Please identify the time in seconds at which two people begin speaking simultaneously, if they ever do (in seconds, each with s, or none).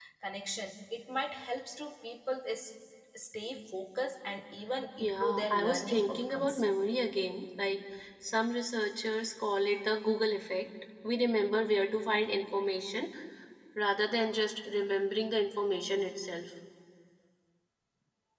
5.0 s